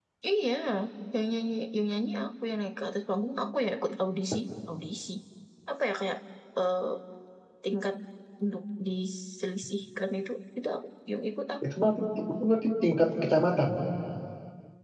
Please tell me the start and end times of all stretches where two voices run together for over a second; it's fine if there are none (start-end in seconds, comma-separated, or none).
none